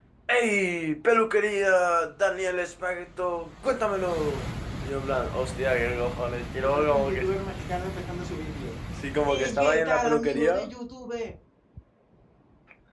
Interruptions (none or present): present